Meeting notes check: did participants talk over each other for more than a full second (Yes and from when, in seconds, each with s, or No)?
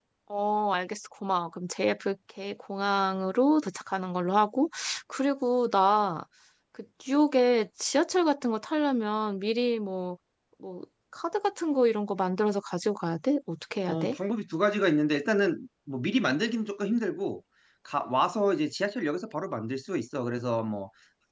No